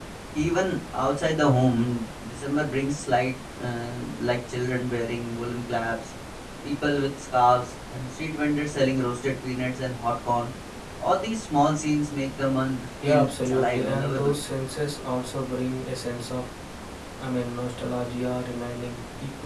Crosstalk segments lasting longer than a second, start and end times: 13.0-14.4

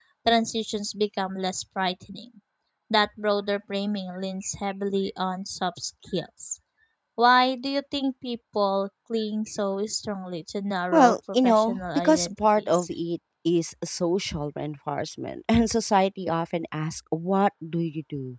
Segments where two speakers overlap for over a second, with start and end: 10.9-12.9

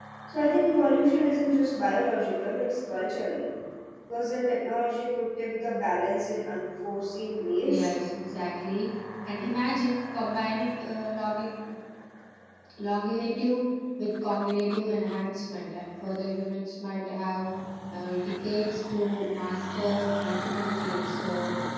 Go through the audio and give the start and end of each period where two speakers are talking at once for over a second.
none

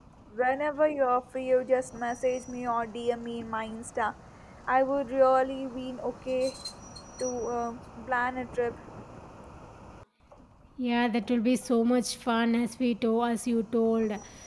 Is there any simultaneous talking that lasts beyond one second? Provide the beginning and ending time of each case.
none

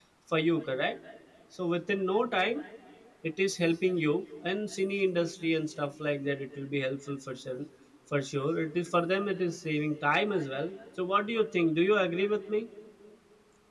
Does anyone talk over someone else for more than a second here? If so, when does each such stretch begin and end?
none

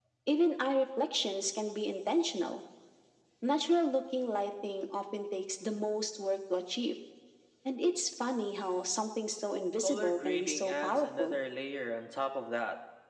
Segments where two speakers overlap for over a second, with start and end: 9.8-11.4

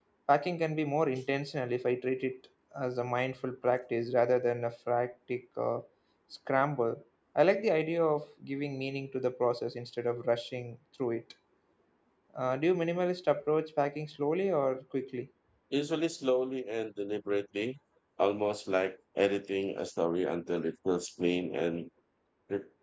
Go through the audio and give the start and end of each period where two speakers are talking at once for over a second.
none

